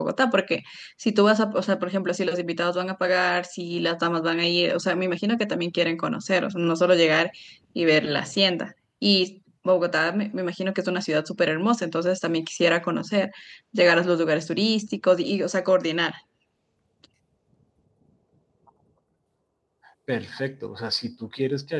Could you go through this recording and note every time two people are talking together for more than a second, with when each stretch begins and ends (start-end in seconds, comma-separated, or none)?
none